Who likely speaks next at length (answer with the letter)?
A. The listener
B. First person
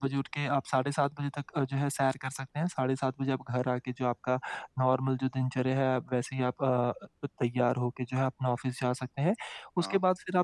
B